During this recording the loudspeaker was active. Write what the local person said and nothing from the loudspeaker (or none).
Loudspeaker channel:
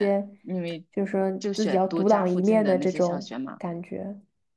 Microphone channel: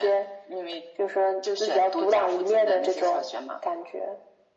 none